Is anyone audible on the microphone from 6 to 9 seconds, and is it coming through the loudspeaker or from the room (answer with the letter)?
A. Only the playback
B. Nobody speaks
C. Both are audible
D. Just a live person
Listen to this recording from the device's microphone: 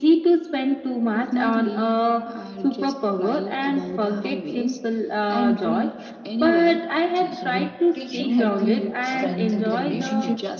C